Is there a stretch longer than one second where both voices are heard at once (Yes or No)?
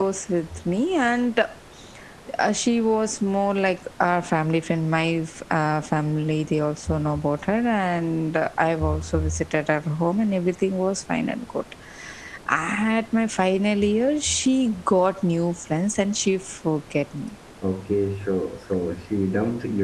No